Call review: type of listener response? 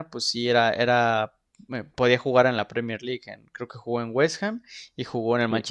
taking over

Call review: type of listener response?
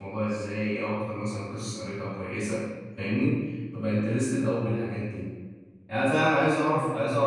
listening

